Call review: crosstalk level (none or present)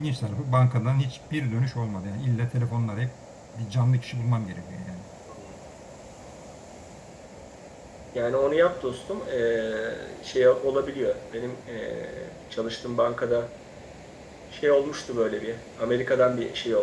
none